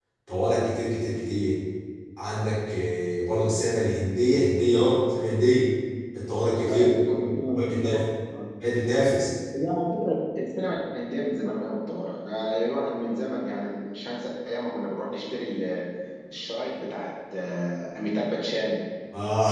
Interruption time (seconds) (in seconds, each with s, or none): 6.7 s